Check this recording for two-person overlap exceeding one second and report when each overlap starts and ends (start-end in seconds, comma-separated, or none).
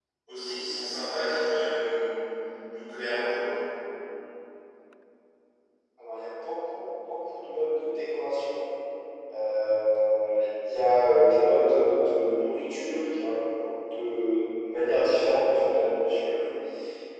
none